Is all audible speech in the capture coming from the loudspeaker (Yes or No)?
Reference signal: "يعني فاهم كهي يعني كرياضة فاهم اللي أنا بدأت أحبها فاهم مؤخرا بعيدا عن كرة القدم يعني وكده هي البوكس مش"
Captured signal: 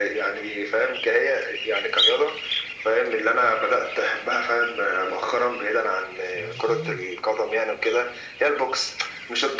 No